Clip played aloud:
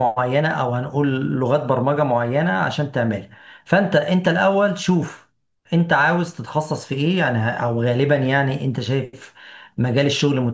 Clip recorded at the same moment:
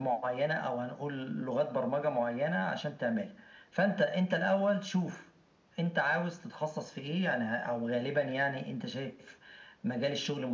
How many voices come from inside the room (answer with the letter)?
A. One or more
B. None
B